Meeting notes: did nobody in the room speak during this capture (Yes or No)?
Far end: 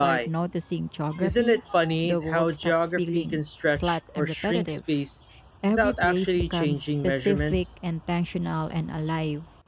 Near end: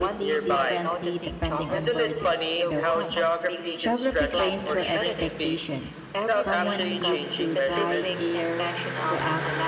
No